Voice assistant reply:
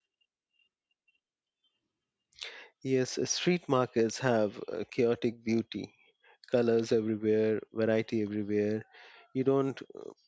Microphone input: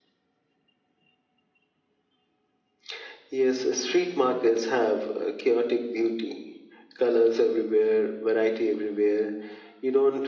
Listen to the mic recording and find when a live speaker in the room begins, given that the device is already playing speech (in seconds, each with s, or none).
none